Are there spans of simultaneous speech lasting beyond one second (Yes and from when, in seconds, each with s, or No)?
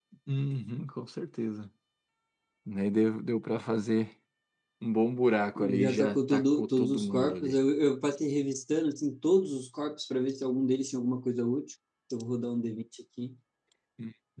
Yes, from 5.6 s